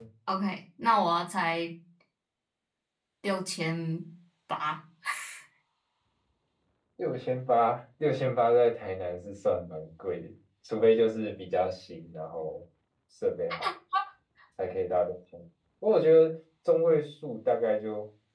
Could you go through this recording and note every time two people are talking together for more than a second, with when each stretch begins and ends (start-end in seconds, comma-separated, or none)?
none